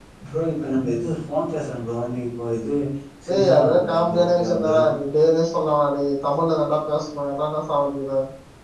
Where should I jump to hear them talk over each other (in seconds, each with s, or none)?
3.3 s